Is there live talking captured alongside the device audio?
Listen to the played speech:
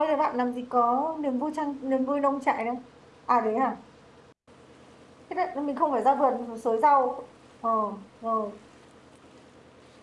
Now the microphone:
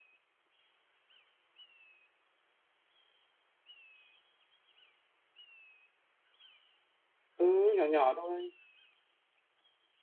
Yes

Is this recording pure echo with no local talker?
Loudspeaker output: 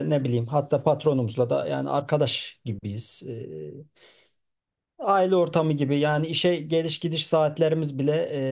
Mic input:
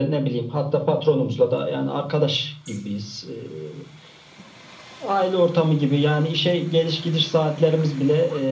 Yes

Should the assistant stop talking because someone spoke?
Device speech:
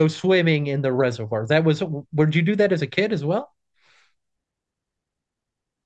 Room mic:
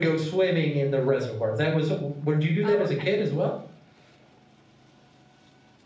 Yes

